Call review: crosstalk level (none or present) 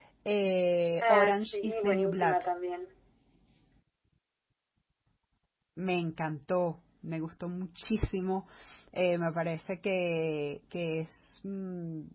present